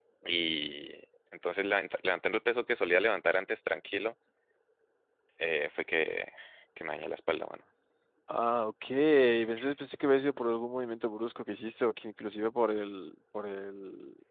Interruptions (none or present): none